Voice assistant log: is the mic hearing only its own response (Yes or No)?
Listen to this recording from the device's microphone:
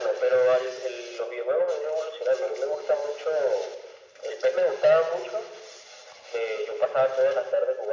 Yes